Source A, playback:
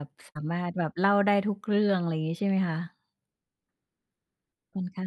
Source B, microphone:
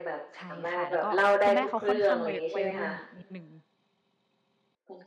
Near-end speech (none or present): present